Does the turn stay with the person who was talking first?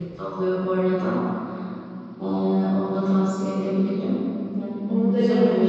No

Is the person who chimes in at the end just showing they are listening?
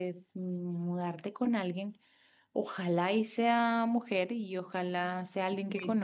Yes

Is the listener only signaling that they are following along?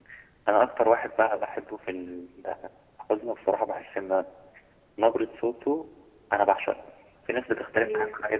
Yes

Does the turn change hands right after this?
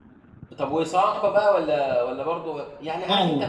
No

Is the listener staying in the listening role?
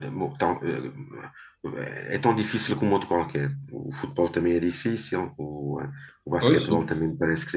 Yes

